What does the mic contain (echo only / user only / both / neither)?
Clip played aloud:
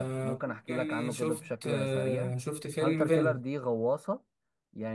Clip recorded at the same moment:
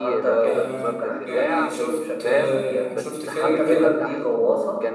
both